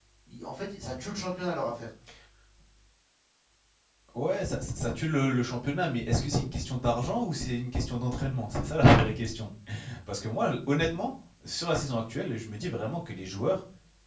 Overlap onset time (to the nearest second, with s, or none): none